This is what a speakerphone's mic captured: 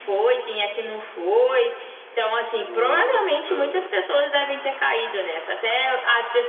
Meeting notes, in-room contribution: present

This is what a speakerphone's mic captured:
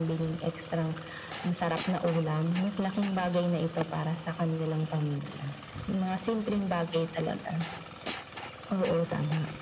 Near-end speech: none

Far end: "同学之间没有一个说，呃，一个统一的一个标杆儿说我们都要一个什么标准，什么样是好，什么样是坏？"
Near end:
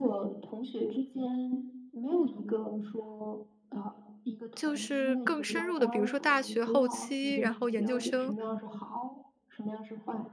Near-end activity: present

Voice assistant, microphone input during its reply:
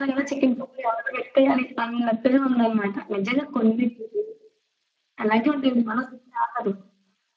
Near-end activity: none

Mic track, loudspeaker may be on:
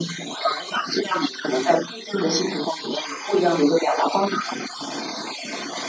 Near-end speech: none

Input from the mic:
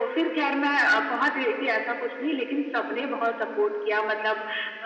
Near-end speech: none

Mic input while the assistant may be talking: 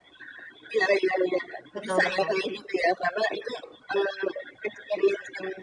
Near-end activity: present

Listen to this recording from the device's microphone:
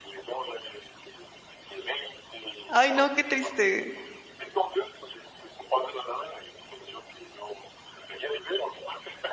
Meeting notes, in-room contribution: present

